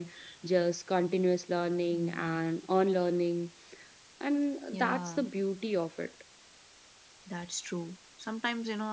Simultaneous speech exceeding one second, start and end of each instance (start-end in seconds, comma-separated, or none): none